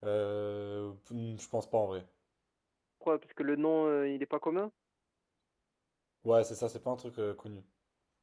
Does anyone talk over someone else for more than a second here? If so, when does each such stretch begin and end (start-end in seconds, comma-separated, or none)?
none